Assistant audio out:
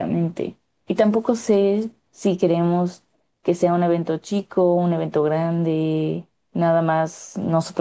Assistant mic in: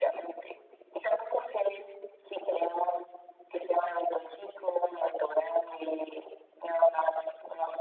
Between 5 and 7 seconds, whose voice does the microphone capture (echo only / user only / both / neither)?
echo only